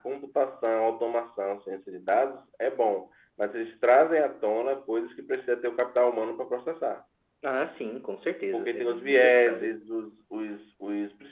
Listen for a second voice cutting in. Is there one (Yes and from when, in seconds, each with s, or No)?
Yes, from 8.5 s